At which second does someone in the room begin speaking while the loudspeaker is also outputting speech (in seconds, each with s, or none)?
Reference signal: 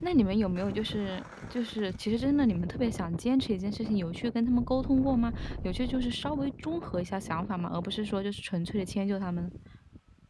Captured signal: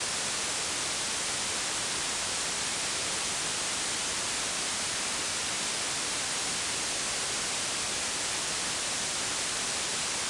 none